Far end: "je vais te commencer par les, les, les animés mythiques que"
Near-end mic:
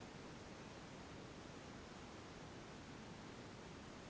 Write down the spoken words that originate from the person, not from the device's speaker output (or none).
none